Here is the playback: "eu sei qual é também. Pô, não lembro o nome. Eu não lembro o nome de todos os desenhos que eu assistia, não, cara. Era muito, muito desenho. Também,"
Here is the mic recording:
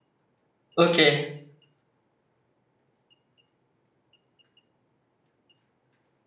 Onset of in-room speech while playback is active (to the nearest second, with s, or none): 1 s